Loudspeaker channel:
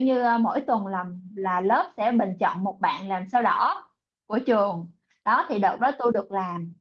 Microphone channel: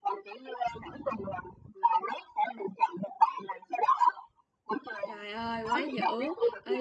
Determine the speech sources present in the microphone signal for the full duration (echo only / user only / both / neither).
both